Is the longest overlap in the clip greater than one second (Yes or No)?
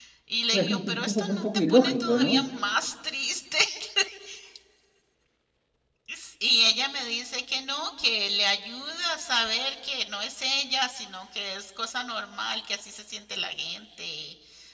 Yes